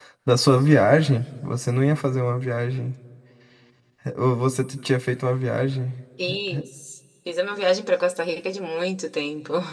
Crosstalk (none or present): none